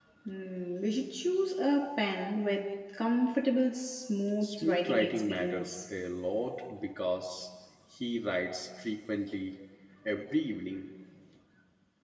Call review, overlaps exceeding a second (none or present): present